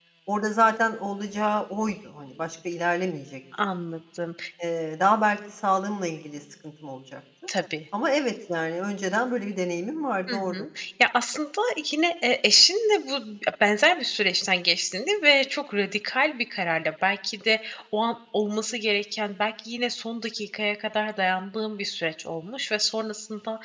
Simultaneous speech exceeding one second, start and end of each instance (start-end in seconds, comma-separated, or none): none